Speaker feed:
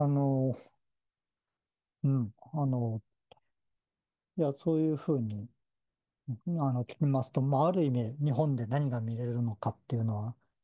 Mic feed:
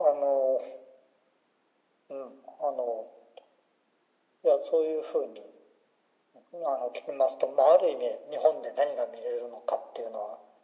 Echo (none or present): present